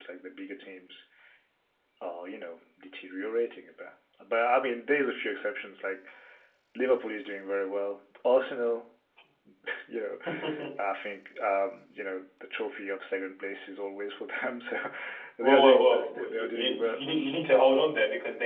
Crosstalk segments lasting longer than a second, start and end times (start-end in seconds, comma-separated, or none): 15.4-16.9